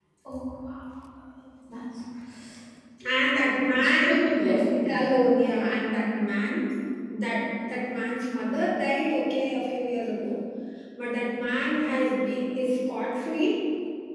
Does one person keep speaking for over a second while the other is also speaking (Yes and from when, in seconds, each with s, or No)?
No